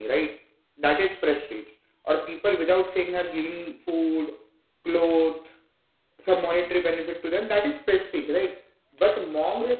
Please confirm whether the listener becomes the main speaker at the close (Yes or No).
No